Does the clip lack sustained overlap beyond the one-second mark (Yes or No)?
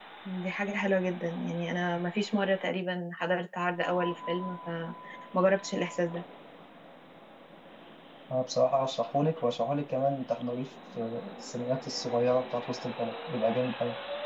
Yes